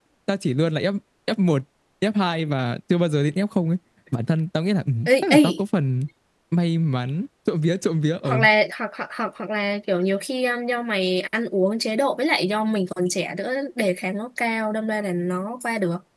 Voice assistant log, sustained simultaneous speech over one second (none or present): none